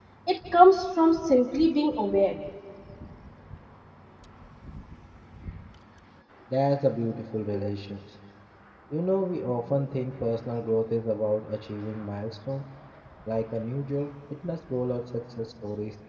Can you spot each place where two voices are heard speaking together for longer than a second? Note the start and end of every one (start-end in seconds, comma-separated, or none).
none